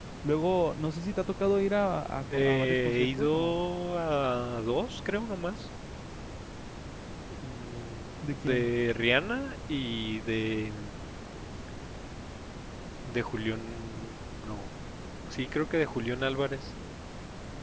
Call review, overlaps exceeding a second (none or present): present